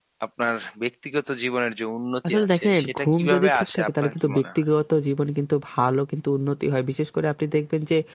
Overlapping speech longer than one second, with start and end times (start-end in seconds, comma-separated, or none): 2.3-4.6